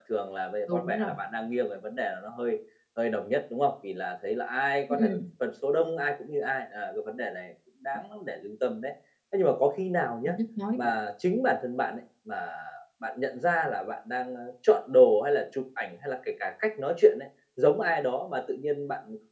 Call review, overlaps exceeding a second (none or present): none